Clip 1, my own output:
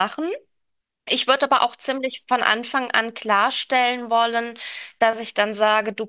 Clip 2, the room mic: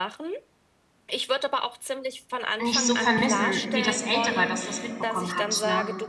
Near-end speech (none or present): present